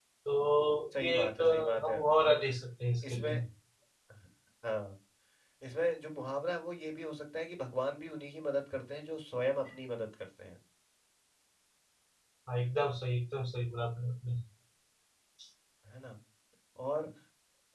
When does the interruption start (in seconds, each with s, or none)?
1.0 s